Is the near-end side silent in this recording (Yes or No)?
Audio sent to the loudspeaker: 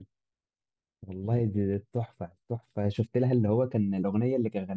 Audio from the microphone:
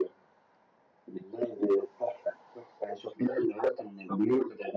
Yes